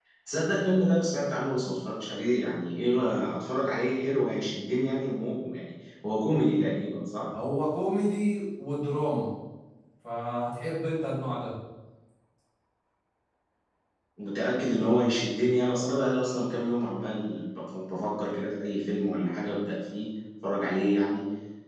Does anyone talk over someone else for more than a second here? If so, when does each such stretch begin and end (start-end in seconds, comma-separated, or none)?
none